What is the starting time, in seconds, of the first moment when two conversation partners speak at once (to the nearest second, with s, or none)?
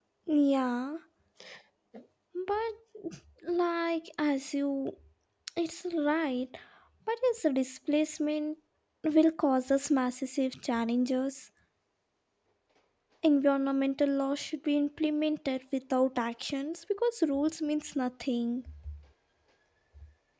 none